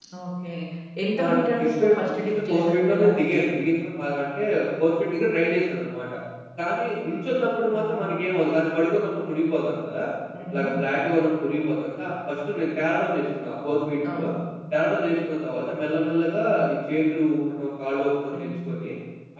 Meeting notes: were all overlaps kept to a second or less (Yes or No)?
No